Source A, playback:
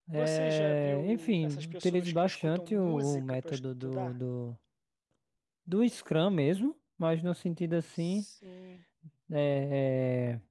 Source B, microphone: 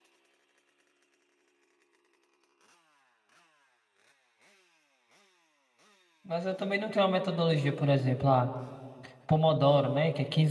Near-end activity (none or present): present